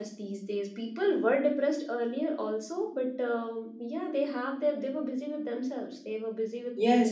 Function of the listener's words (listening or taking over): taking over